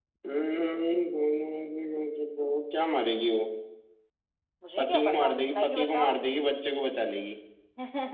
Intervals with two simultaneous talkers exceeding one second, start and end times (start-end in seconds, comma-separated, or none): 4.8-6.2